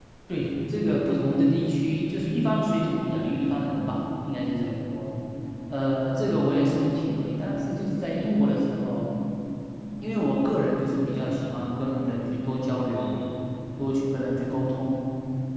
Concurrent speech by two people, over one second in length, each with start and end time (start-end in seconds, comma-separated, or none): none